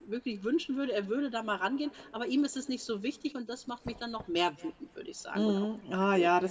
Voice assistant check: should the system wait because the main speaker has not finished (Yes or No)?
No